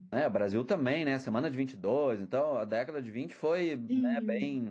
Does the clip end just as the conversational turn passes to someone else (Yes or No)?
No